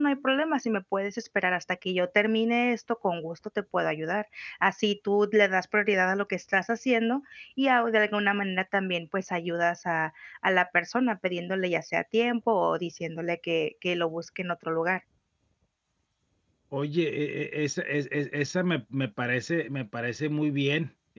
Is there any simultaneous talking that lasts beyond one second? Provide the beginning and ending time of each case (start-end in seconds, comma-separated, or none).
none